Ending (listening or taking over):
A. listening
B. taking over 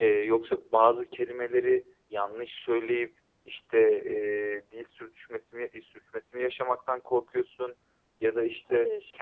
A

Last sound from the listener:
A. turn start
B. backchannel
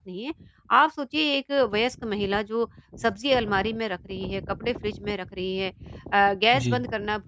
B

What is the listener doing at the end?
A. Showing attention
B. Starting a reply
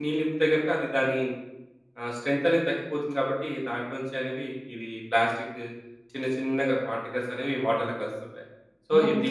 B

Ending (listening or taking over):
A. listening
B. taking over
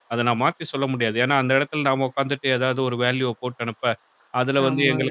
A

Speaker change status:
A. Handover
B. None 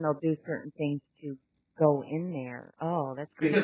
A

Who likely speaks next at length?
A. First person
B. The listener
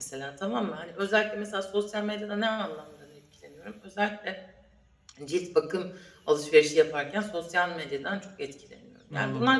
A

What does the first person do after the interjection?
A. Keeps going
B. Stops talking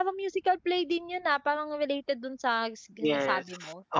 B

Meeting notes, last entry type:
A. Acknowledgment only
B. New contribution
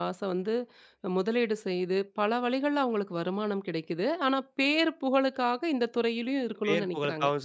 B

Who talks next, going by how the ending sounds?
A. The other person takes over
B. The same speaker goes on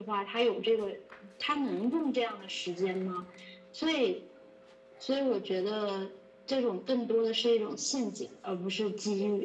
A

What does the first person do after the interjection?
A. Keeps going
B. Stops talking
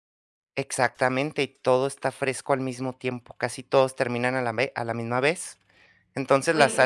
A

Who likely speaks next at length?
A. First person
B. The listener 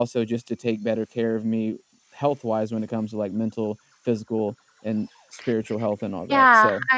B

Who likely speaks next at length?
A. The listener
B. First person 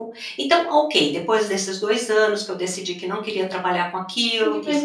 A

